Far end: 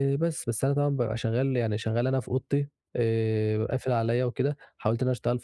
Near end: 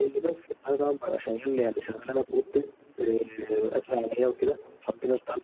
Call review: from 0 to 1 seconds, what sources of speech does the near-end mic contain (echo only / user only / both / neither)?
echo only